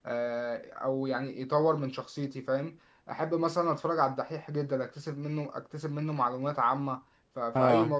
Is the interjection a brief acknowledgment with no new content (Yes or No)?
Yes